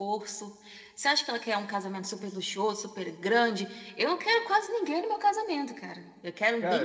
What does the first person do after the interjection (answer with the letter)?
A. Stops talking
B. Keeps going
A